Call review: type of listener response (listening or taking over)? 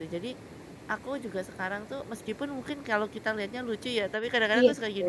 listening